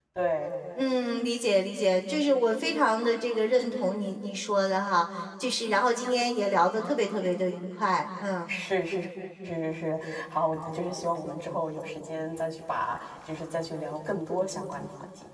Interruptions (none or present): none